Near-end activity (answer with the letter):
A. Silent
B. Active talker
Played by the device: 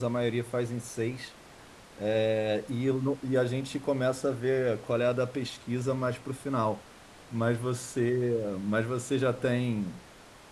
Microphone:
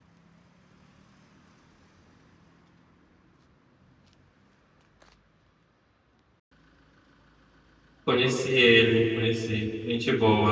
B